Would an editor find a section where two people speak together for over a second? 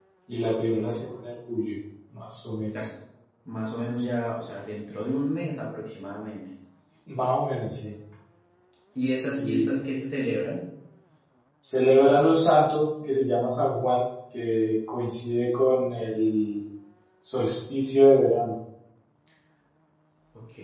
No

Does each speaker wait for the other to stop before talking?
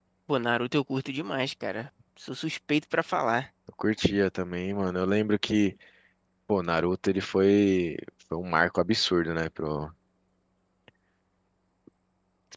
Yes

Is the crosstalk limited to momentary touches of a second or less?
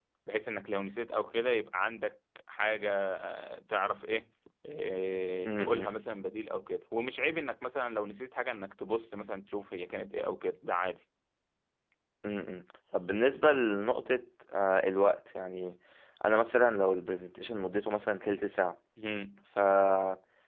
Yes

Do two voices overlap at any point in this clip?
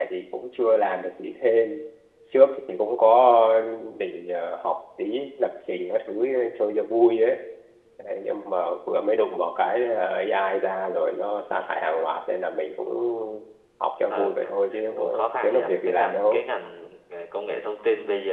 Yes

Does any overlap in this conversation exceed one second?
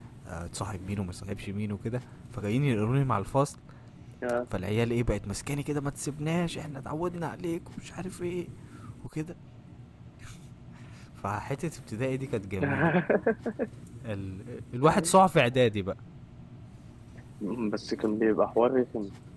No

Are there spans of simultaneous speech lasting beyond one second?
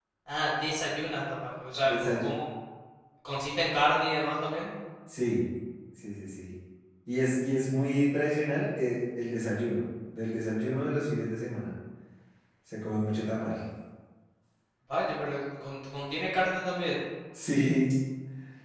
No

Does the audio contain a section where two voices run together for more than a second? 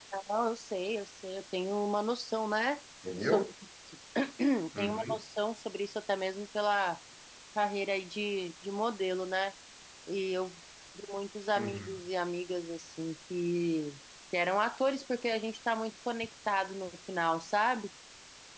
No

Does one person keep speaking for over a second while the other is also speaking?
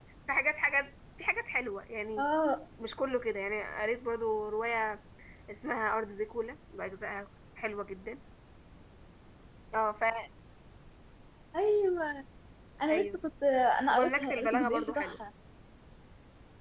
Yes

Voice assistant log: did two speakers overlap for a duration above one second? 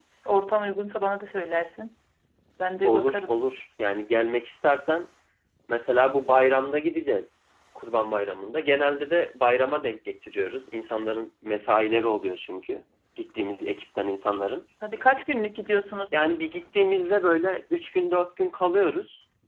No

